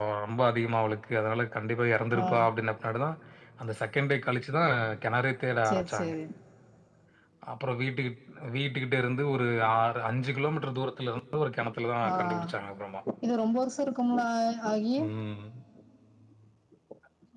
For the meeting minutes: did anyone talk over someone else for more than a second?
No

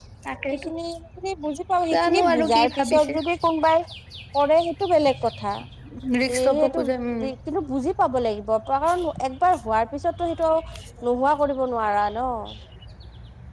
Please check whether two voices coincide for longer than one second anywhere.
Yes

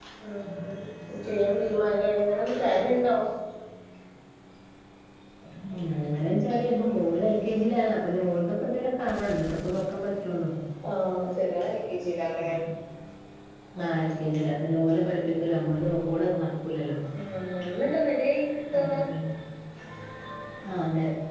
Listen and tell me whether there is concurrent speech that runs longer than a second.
No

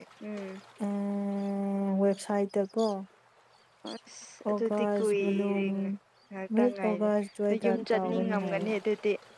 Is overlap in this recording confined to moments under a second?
No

